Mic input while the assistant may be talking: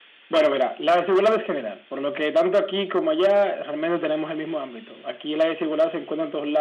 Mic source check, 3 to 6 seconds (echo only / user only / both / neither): echo only